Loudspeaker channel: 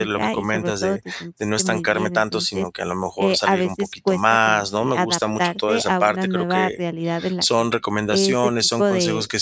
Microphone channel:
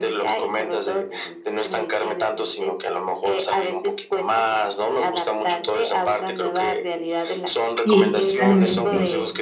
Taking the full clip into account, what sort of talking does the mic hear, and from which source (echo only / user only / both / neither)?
both